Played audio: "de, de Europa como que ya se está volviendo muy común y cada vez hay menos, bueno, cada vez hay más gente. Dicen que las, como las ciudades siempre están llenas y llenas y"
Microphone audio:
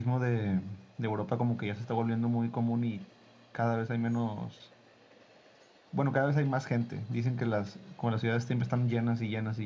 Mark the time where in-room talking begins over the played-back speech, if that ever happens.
none

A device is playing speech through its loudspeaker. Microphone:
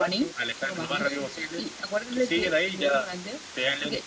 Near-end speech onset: none

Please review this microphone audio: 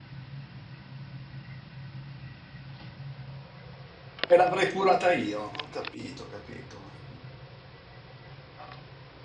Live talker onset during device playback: 4.2 s

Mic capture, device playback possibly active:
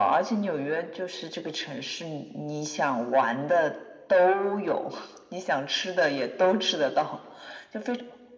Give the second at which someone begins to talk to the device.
none

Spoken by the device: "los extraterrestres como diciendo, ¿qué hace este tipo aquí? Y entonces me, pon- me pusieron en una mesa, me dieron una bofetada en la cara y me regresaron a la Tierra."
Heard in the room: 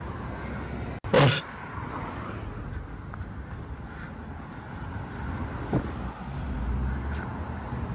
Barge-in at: 1.1 s

